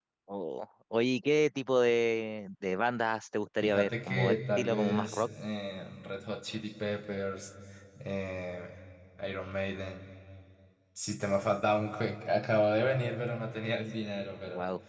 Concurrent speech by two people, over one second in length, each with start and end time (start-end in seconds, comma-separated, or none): 3.6-5.3